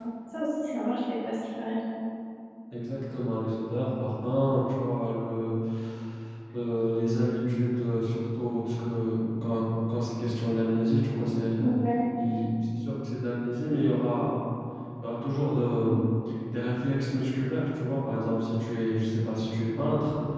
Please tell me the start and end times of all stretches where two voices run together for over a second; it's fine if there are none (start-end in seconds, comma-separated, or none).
none